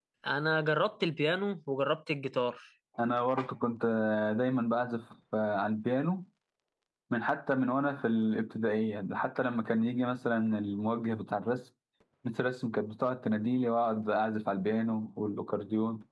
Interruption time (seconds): none

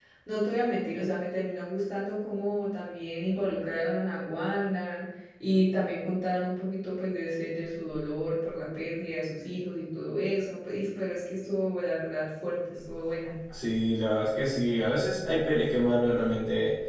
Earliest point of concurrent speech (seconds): none

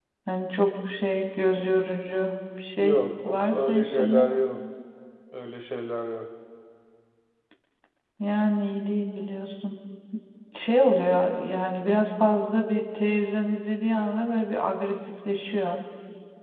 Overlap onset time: 2.8 s

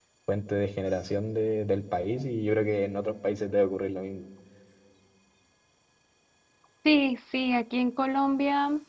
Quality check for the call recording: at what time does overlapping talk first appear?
none

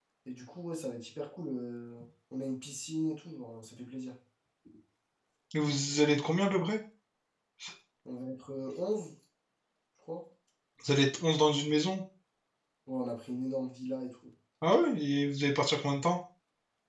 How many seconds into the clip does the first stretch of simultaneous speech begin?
none

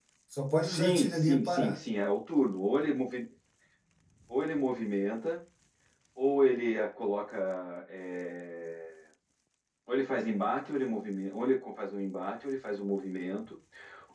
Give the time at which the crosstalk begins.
0.6 s

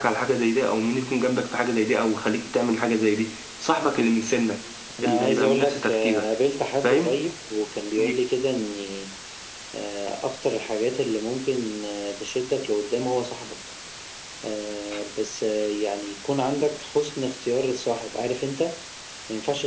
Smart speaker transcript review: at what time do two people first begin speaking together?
5.0 s

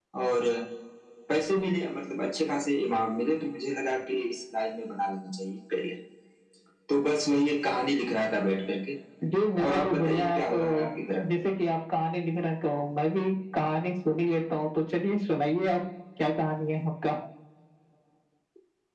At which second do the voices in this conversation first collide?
9.6 s

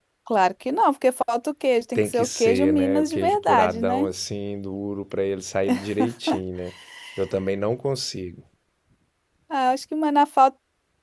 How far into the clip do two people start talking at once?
2.0 s

